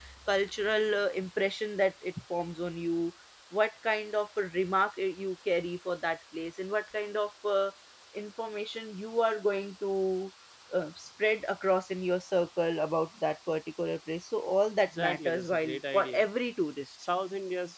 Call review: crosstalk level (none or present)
present